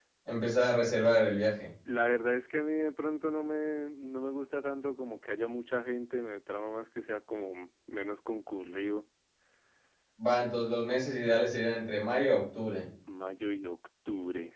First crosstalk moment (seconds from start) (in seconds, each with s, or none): none